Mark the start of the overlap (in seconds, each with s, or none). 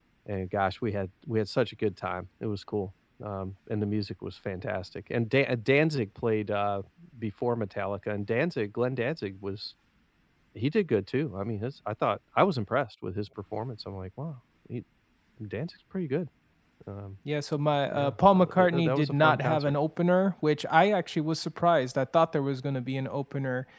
17.9 s